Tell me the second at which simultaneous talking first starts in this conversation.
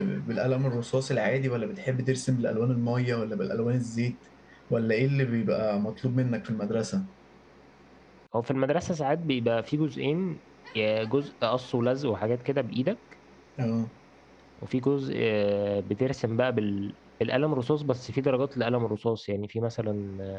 none

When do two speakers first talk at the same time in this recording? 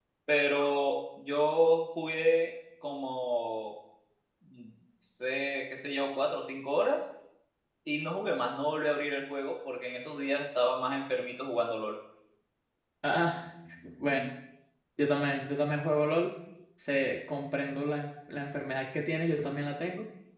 none

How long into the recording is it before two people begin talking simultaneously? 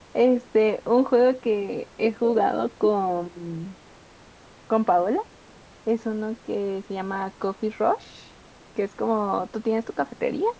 none

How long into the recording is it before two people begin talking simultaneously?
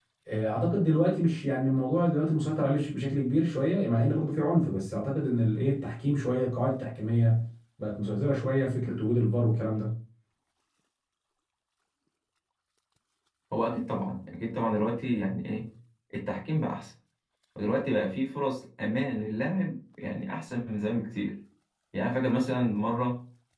none

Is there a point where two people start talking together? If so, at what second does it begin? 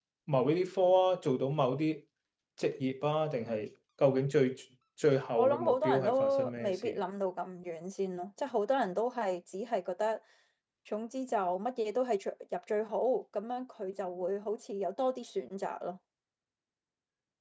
5 s

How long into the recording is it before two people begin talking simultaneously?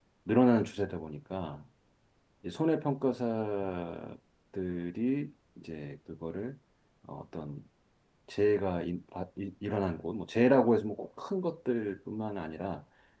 none

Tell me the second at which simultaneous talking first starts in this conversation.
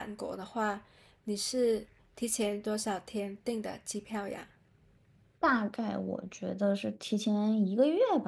none

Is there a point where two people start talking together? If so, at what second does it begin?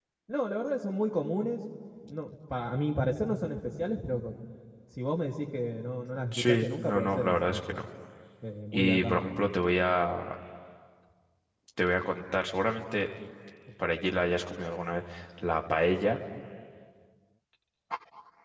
6 s

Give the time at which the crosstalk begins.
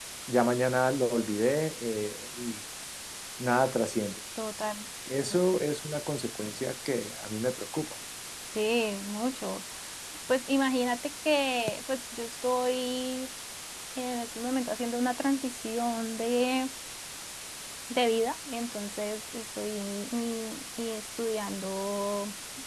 none

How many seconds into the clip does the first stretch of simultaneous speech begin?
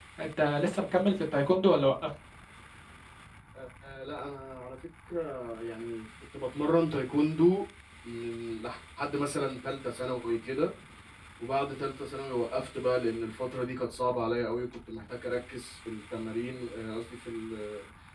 none

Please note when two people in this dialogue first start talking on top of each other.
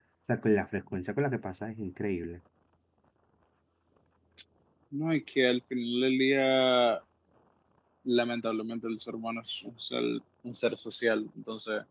none

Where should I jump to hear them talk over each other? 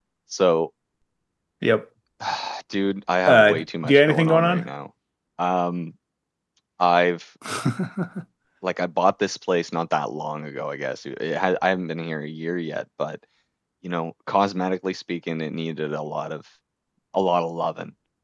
3 s

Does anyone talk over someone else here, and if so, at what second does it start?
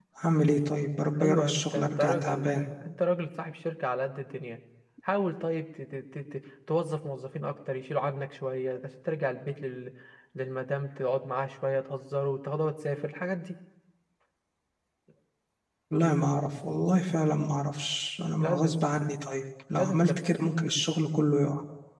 1 s

